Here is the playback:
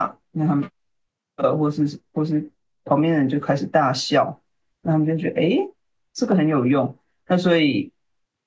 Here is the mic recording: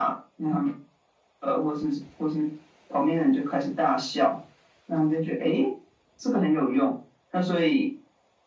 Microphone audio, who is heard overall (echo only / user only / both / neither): echo only